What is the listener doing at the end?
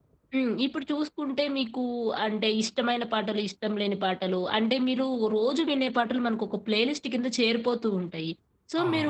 listening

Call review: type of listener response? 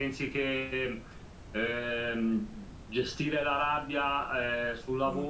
listening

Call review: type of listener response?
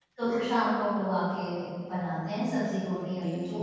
taking over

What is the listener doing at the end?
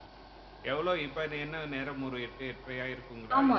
taking over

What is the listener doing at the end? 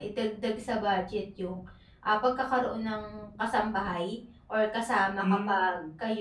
listening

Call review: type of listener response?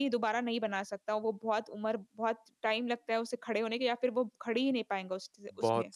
taking over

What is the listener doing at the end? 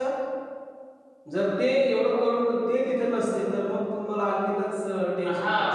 taking over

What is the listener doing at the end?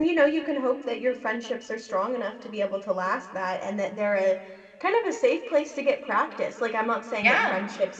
listening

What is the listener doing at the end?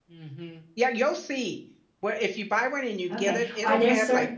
taking over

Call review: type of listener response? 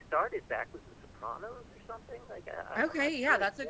taking over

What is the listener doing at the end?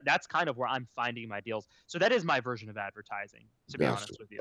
taking over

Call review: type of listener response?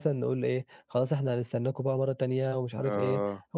listening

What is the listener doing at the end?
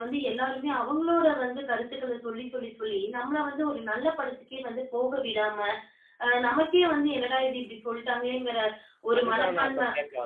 taking over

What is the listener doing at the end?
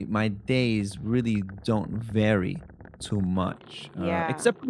listening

